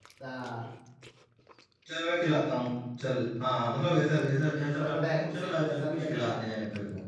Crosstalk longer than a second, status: present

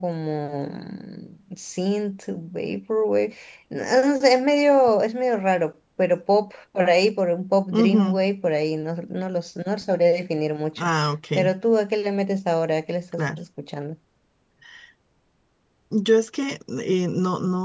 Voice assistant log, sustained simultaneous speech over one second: none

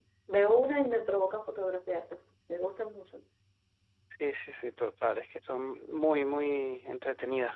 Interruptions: none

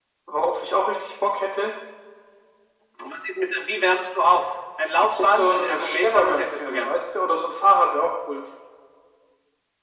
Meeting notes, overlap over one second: present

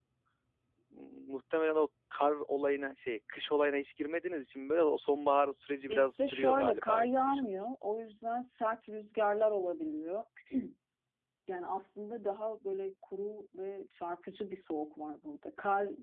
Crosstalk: present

